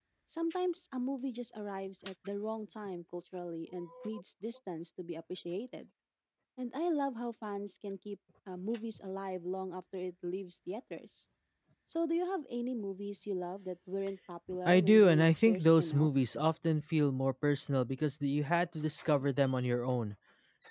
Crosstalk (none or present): present